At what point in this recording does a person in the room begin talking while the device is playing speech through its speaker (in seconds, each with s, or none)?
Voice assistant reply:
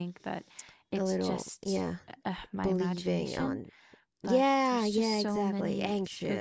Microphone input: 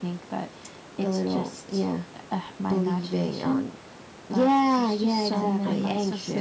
5.3 s